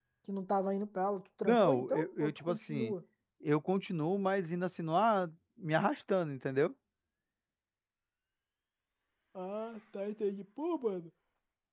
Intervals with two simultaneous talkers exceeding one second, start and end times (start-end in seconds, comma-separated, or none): 1.4-2.9